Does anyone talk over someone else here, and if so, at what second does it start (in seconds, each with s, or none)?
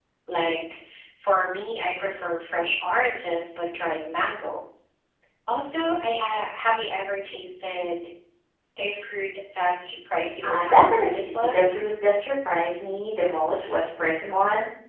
10.4 s